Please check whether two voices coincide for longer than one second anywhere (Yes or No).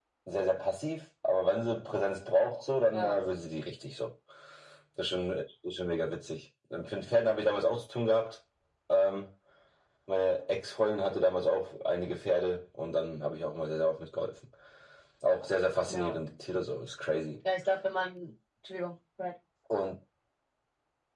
No